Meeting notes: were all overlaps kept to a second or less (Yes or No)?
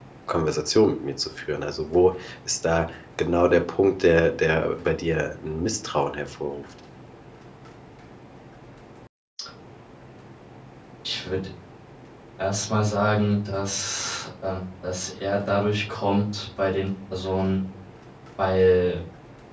Yes